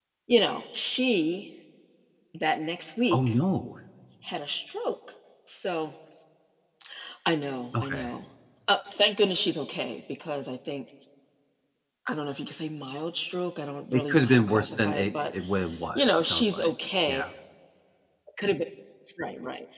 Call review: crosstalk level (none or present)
present